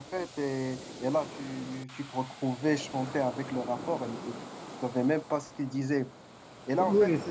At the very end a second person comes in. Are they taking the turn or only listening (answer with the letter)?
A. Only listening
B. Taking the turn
A